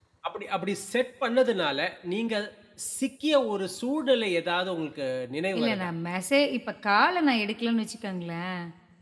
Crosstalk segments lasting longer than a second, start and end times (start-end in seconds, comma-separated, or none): none